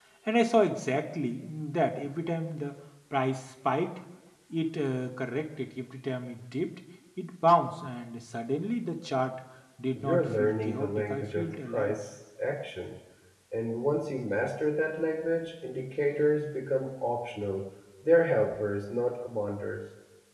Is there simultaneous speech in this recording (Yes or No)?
Yes